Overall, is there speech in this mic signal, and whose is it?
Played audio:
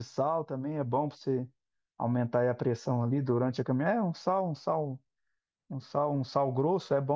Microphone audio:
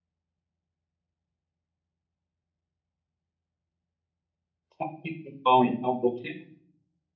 user only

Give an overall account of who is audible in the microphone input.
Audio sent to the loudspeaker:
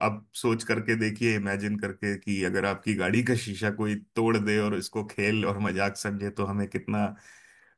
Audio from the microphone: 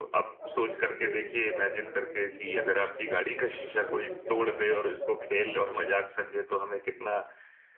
both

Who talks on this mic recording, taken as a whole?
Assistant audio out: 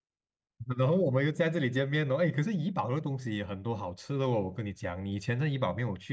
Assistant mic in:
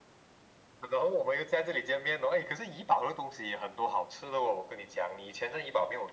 echo only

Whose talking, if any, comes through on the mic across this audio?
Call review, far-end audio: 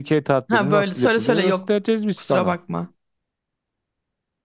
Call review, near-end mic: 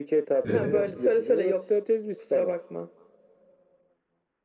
both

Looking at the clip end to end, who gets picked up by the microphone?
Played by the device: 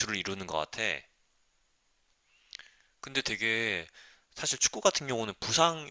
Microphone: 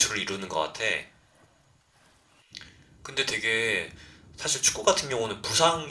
echo only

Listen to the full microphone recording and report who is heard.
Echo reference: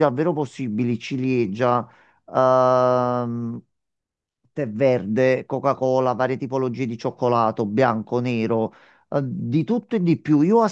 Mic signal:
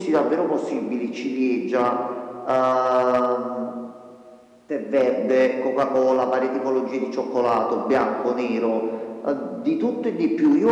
echo only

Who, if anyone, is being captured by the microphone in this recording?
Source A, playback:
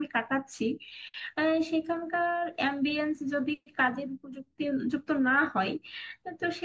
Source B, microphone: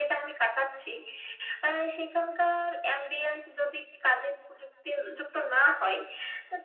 echo only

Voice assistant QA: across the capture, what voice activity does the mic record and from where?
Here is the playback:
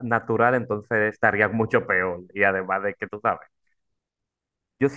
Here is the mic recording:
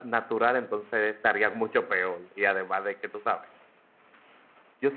echo only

